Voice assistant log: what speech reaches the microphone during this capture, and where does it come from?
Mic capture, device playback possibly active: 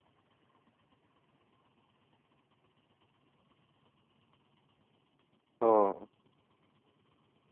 user only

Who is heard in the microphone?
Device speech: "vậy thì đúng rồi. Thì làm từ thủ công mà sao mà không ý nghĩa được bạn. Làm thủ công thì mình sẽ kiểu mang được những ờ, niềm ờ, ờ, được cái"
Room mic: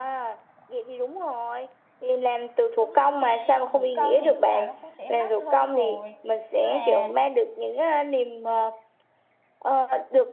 both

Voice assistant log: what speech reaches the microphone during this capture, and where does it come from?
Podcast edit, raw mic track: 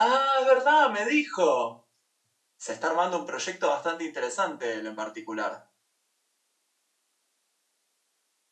user only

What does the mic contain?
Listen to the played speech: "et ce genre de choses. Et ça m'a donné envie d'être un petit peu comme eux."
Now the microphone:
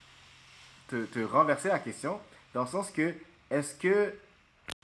user only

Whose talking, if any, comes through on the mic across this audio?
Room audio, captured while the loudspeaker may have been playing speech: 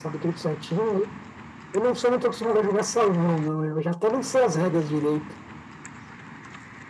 echo only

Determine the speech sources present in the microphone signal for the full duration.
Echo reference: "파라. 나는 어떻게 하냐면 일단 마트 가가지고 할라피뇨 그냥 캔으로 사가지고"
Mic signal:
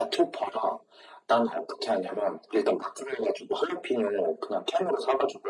echo only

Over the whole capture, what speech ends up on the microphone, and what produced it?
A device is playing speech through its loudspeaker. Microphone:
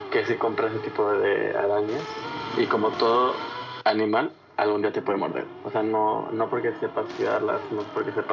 echo only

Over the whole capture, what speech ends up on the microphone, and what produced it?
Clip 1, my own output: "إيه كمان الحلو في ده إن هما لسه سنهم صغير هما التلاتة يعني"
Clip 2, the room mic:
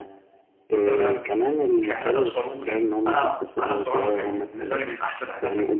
both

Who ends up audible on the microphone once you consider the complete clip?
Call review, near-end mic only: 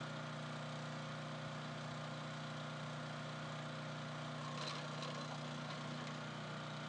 neither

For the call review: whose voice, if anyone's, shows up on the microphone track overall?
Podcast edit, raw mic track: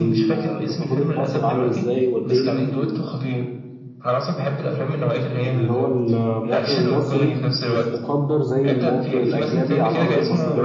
both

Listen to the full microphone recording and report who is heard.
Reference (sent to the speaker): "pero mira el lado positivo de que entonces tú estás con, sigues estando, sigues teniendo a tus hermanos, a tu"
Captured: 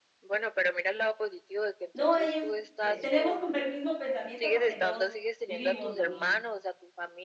both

